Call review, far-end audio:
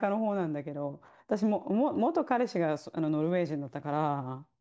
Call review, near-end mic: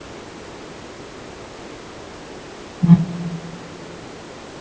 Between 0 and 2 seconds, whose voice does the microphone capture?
neither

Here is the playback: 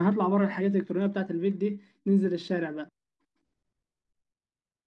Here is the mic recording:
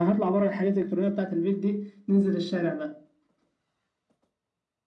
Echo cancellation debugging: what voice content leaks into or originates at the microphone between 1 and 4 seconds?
echo only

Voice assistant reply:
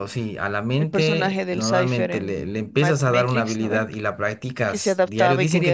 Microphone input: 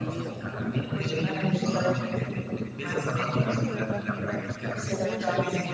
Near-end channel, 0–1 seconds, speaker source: both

